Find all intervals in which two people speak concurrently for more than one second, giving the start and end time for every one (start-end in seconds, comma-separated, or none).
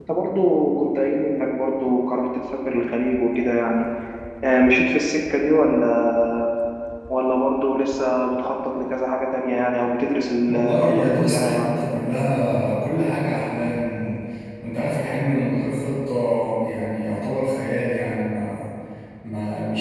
10.5-11.7